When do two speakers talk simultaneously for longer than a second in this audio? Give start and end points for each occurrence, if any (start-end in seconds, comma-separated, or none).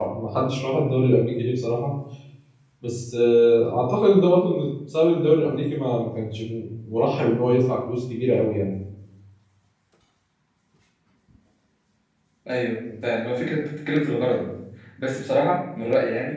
none